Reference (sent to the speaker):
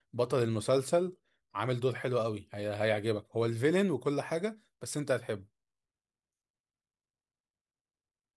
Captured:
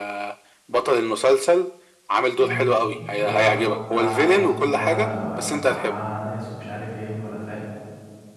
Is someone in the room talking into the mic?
Yes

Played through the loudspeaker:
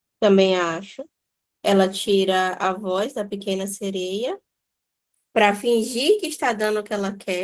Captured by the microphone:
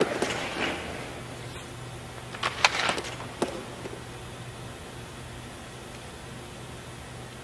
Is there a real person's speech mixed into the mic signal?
No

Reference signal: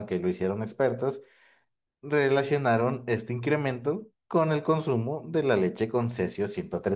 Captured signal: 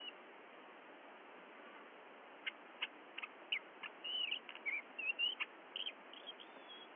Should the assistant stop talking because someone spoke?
No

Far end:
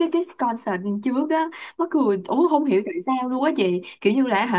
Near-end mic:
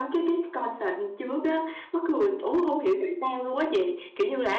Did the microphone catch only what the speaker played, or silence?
Yes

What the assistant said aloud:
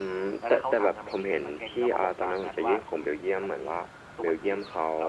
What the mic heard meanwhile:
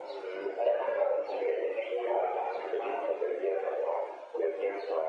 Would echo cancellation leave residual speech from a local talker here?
No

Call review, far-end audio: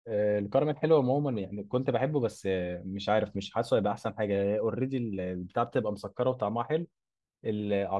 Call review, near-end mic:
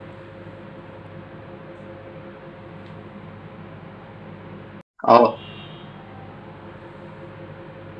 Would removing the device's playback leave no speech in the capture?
No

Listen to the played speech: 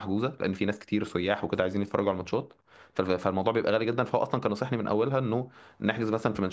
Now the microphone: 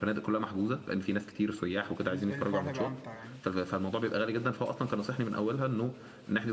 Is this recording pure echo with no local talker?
No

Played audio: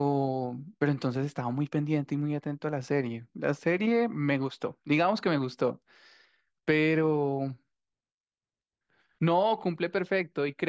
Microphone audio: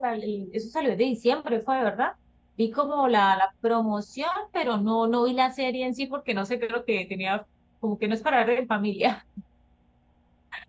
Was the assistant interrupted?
Yes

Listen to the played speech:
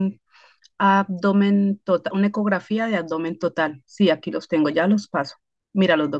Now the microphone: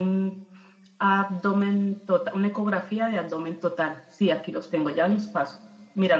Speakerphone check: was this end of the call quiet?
Yes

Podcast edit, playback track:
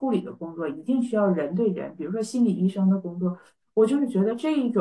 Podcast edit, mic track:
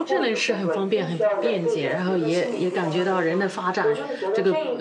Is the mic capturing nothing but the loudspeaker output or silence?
No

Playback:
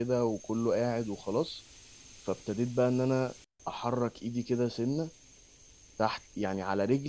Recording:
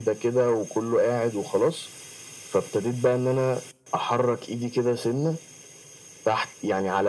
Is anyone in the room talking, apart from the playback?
No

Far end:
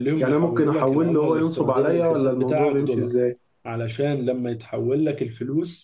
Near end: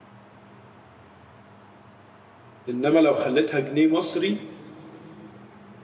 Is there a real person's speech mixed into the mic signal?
Yes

